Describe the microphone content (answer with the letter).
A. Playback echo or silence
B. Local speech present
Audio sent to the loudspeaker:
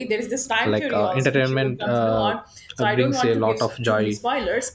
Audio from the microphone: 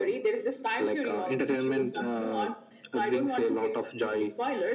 A